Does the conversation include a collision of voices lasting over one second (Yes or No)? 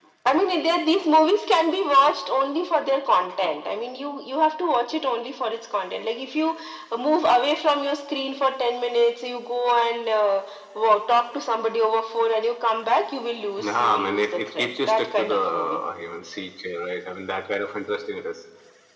Yes